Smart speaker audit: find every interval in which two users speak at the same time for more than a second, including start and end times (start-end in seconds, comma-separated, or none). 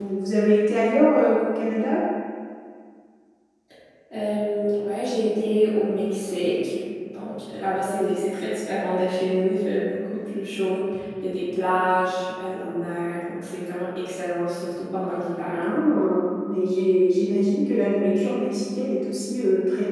none